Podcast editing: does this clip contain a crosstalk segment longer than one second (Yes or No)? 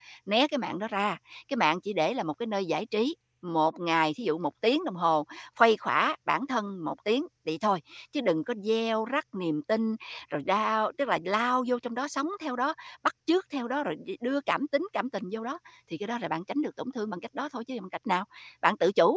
No